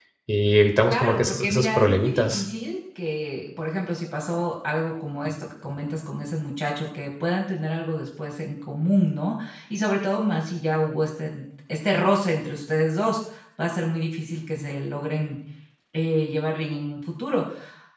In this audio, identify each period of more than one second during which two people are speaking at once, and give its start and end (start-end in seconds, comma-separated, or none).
0.9-2.4